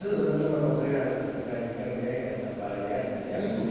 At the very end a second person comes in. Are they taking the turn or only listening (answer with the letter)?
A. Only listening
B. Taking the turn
A